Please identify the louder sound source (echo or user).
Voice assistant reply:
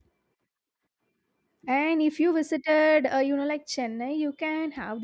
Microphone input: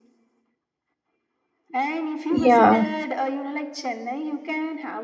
user